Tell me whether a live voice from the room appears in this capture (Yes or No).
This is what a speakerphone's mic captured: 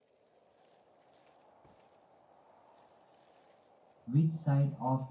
Yes